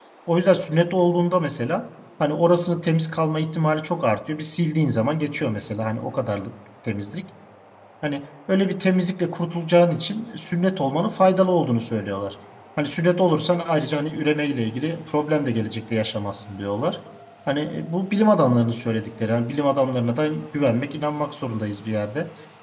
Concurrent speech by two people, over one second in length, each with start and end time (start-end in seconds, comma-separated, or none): none